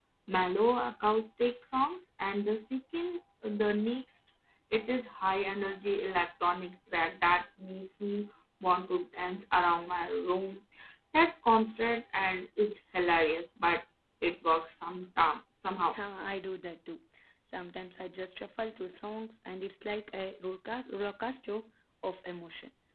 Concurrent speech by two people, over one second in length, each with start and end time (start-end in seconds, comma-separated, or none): none